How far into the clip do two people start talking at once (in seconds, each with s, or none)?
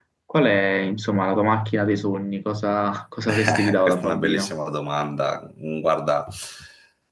3.3 s